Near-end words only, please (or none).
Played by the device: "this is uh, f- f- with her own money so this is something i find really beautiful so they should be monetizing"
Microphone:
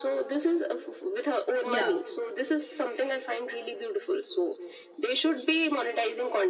yeah.